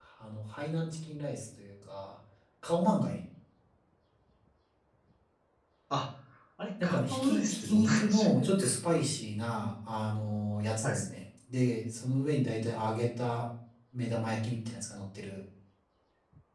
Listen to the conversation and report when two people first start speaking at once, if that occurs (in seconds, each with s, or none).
6.8 s